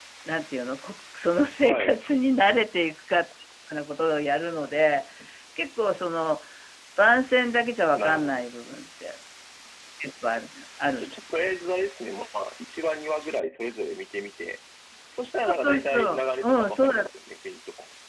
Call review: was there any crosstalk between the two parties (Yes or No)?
Yes